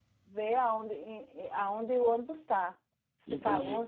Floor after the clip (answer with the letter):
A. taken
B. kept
B